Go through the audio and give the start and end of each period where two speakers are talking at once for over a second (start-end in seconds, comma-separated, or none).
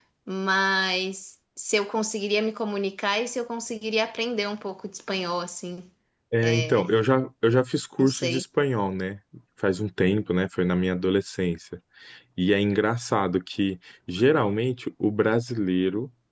none